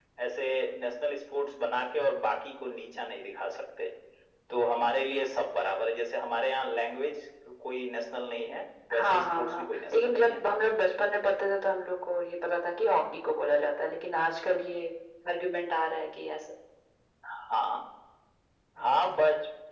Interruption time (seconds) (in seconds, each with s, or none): 8.9 s